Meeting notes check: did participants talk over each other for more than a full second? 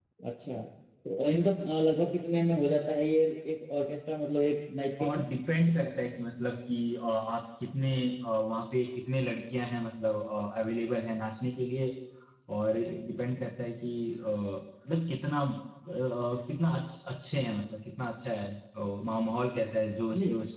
No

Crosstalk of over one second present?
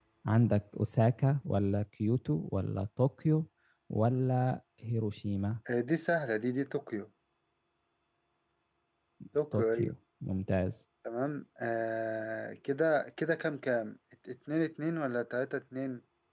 No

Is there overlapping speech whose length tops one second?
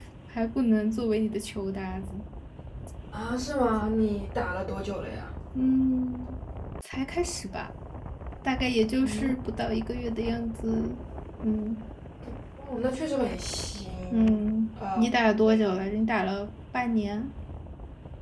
No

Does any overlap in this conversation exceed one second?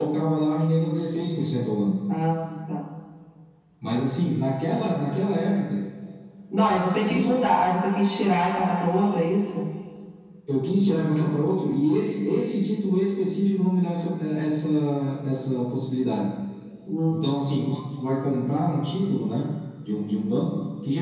No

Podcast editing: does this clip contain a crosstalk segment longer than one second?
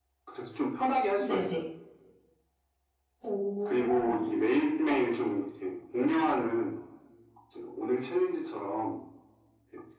No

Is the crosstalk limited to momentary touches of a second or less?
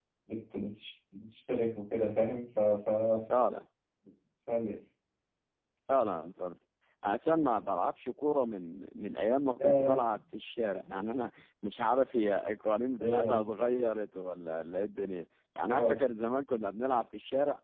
Yes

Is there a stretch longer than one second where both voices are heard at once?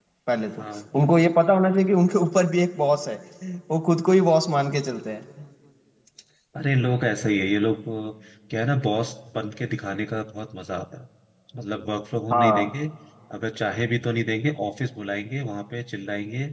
No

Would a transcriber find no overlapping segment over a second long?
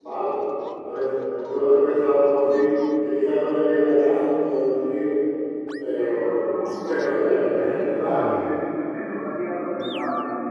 No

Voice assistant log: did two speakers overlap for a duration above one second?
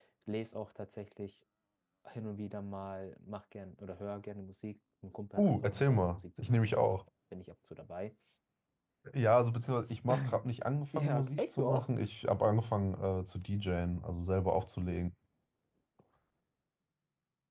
Yes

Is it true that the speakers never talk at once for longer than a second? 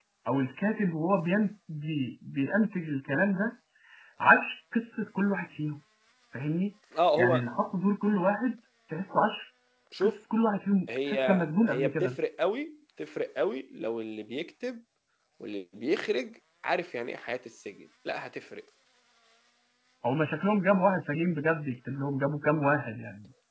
Yes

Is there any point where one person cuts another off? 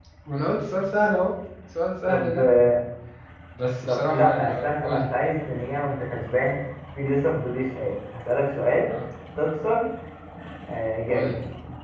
Yes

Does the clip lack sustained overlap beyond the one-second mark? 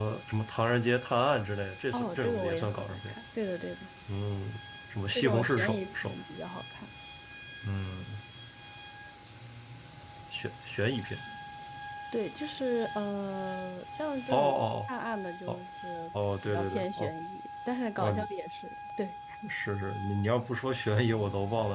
No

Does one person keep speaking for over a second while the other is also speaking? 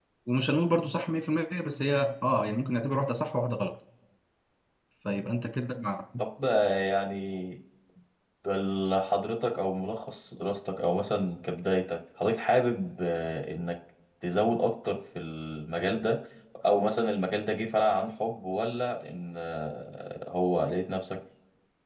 No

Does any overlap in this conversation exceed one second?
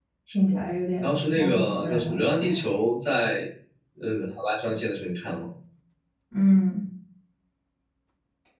Yes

